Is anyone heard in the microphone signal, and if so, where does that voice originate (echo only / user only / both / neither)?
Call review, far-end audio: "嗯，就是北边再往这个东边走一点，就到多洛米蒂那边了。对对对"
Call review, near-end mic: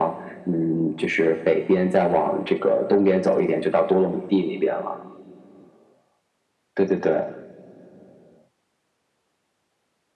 echo only